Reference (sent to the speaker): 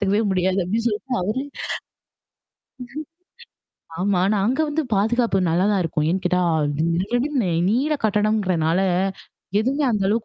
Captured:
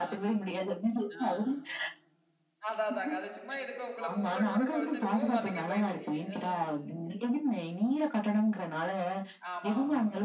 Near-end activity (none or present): present